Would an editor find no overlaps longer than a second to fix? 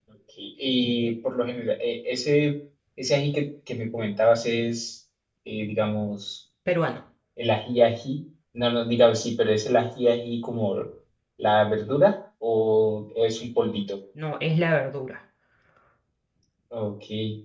Yes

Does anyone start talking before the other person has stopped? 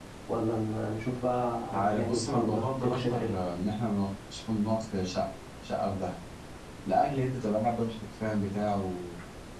Yes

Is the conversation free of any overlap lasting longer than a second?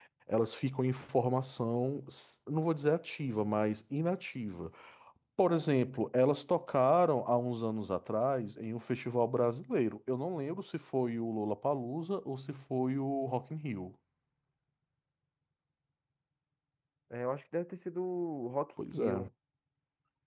Yes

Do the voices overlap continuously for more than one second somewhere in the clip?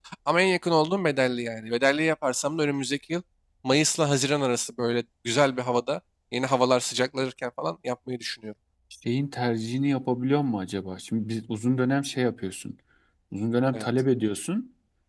No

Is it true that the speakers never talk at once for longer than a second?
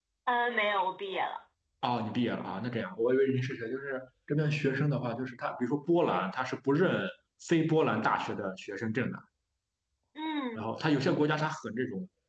Yes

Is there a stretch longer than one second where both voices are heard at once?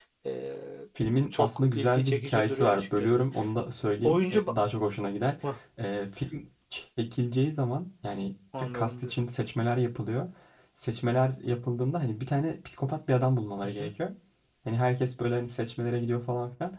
Yes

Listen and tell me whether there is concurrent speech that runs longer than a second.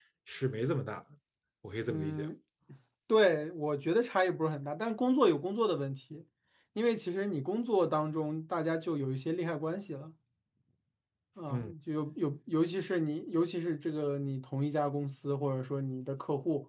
No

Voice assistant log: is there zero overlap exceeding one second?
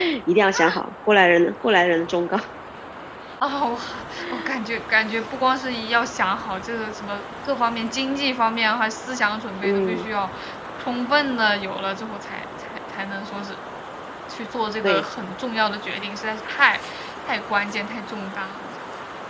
Yes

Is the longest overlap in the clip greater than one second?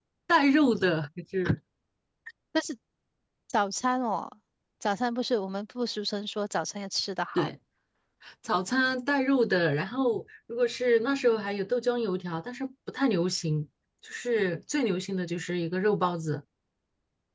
No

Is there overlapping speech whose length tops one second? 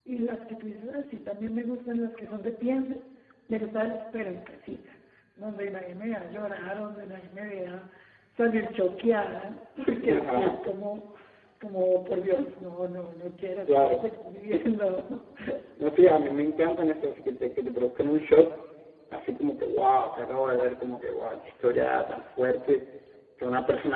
No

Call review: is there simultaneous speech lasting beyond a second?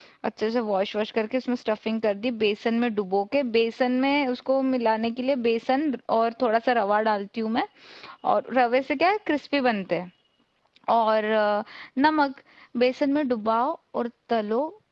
No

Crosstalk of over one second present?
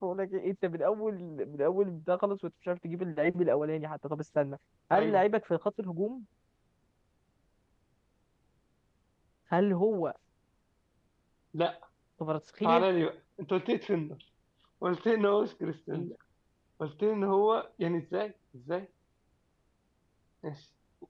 No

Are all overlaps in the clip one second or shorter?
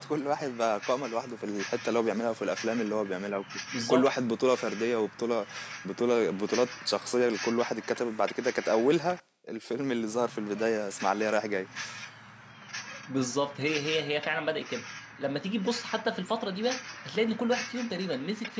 Yes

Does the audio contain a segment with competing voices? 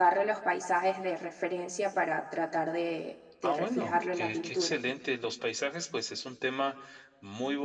Yes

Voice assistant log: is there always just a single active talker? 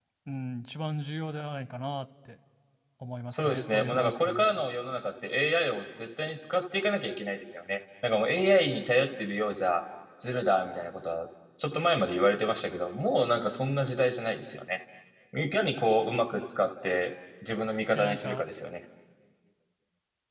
No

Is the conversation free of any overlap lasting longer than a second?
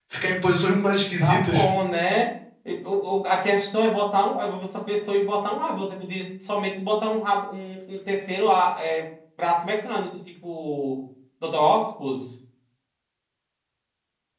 Yes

